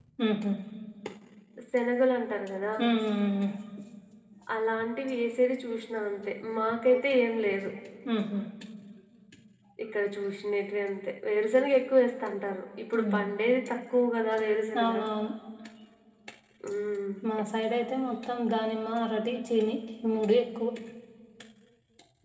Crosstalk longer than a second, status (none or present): none